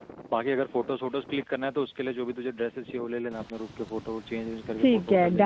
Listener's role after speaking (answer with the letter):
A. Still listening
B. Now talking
B